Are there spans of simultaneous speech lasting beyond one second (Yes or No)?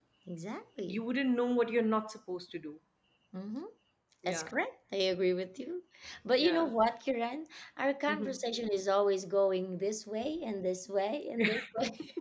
No